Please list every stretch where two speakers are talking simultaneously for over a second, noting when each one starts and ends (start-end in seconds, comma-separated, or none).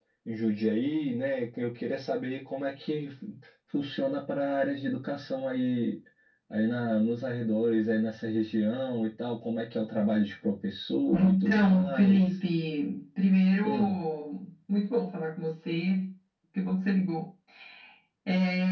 11.1-12.3